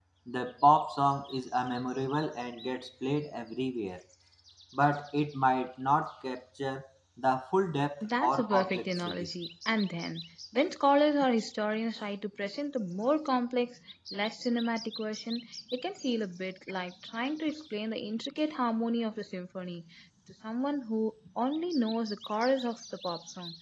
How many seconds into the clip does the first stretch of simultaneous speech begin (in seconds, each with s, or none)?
8.0 s